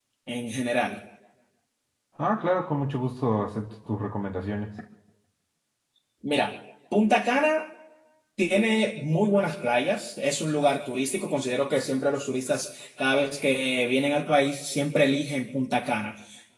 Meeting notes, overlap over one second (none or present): none